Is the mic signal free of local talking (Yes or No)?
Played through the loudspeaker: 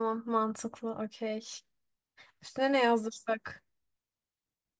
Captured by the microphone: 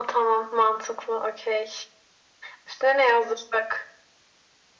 Yes